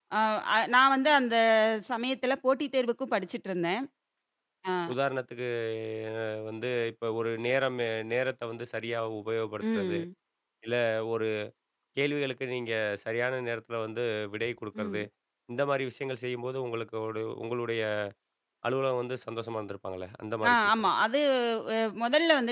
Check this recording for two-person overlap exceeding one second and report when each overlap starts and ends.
none

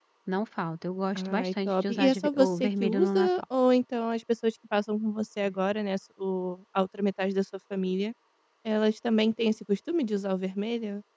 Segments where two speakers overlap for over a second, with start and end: 1.2-3.3

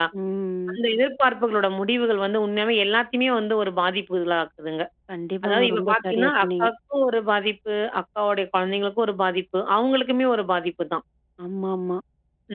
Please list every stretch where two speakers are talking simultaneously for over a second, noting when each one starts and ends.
5.4-6.7

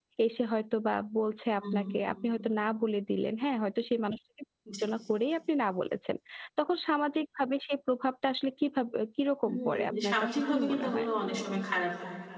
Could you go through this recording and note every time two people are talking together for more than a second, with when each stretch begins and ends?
9.4-11.1

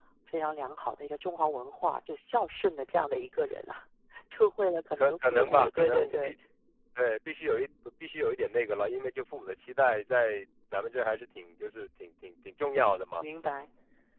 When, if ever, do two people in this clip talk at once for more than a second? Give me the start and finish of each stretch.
5.0-6.3

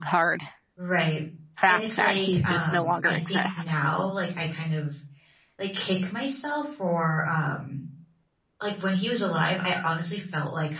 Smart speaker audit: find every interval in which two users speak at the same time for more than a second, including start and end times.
1.7-3.7

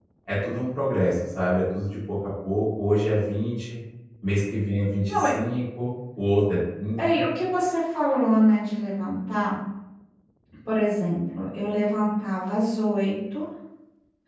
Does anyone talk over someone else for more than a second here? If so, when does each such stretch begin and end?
none

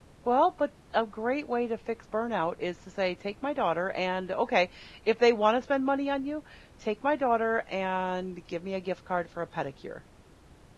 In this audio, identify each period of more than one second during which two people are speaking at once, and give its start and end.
none

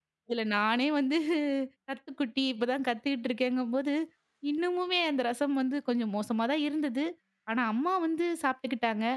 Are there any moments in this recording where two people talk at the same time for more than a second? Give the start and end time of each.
none

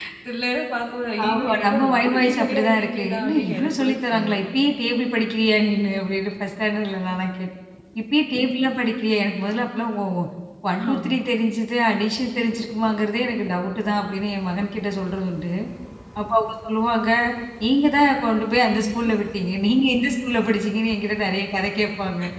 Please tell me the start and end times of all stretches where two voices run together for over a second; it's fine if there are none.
1.2-4.4

